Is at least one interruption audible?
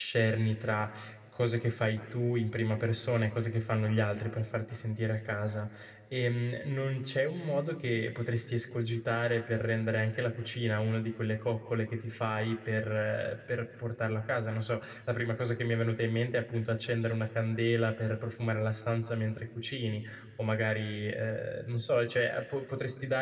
No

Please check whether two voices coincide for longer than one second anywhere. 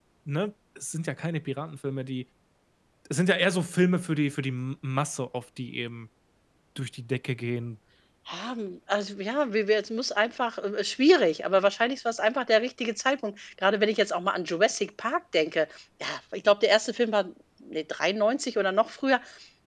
No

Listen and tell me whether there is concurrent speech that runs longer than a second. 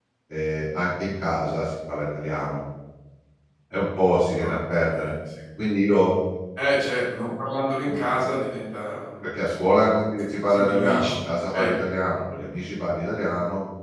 Yes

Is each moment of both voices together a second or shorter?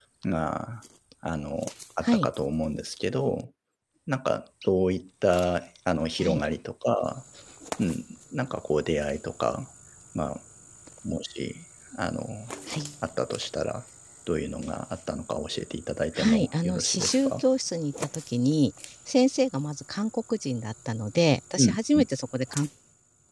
No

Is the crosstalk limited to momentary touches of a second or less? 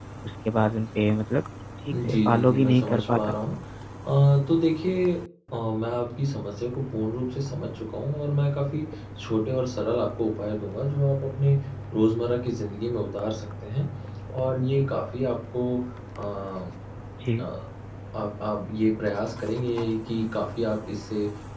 No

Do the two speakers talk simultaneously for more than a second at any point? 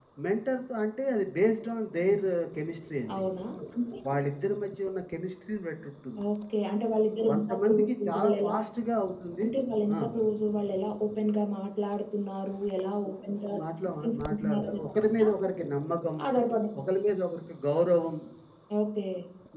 Yes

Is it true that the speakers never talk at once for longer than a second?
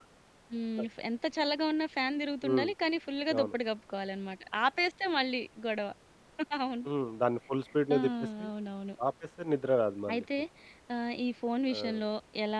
Yes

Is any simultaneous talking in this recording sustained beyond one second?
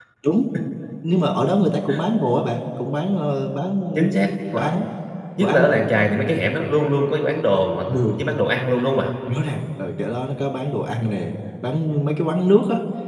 No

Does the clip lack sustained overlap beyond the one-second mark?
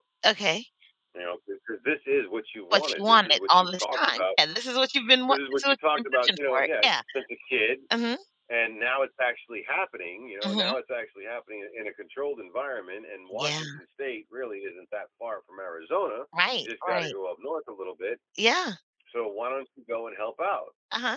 No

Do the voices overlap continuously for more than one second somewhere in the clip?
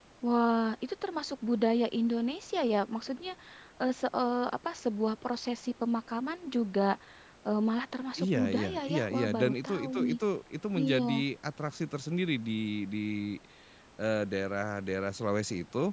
Yes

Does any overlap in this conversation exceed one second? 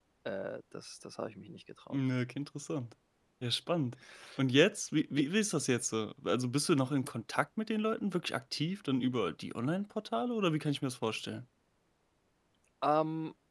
No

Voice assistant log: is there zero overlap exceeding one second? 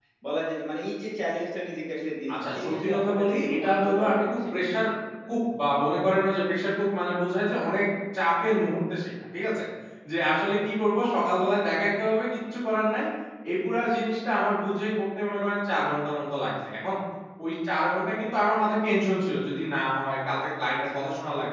No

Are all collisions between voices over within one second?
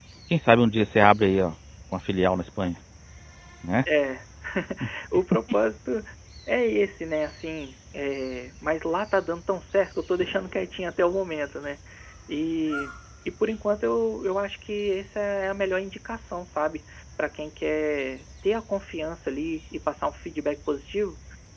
Yes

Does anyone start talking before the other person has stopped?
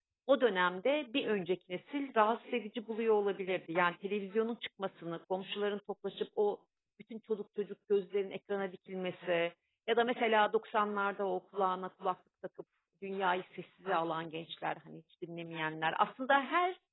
No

